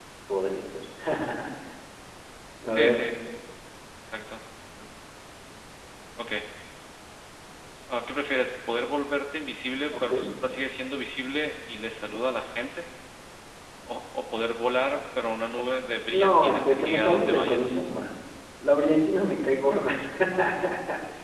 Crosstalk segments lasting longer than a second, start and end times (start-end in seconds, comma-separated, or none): 16.1-17.7